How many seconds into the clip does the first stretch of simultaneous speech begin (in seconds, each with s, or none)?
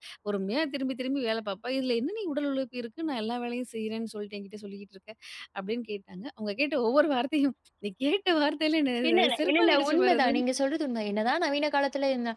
9.0 s